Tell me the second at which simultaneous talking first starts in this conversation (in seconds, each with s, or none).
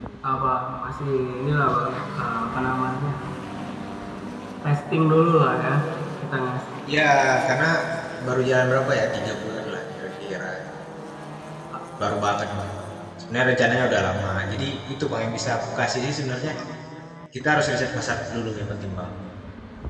none